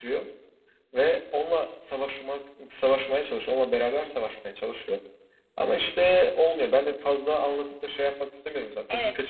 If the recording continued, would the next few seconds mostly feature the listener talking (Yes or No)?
Yes